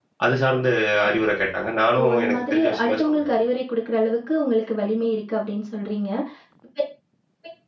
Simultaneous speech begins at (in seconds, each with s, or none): 2.0 s